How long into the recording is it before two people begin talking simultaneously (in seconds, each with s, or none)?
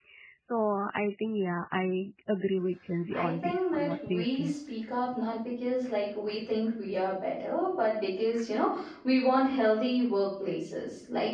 3.1 s